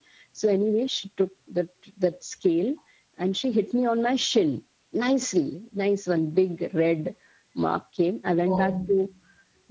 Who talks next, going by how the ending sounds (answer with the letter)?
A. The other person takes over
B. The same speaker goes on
B